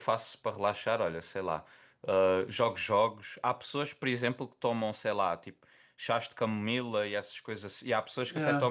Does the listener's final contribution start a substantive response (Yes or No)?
No